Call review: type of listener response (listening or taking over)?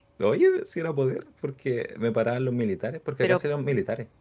listening